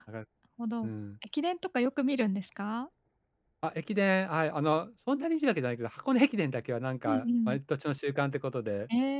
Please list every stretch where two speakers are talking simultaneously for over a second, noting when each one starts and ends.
none

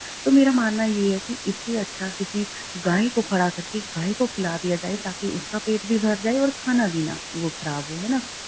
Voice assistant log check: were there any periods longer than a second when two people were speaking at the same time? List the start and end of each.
none

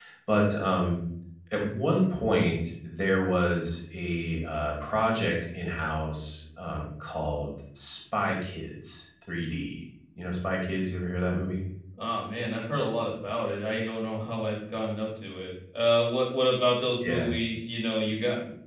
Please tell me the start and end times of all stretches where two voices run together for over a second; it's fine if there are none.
none

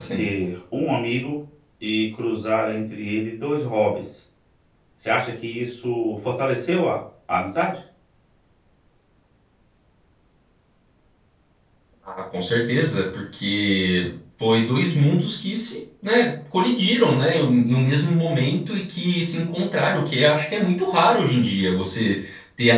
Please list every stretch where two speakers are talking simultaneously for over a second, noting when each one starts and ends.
none

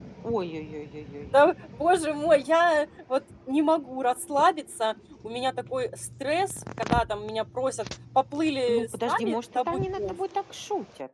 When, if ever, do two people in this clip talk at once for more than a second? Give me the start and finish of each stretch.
8.7-10.2

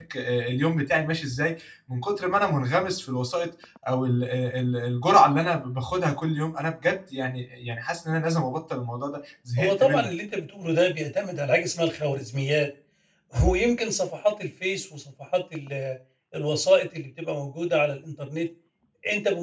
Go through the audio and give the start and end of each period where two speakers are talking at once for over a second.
none

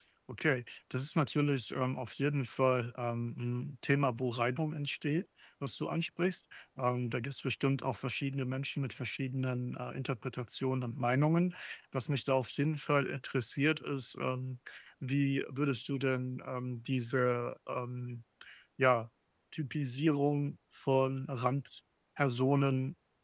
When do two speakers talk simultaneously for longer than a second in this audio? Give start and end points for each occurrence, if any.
none

